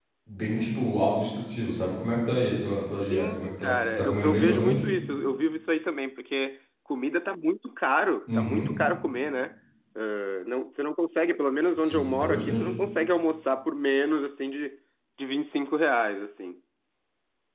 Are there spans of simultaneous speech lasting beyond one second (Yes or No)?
Yes